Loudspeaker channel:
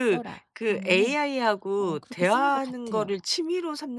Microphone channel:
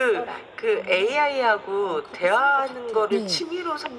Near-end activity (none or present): present